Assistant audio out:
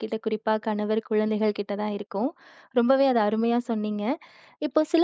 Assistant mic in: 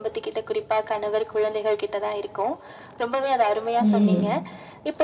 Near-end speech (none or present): present